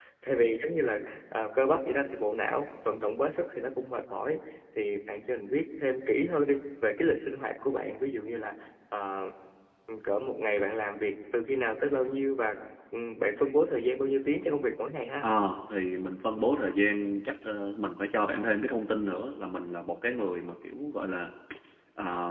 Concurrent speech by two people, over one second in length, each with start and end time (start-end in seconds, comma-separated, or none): none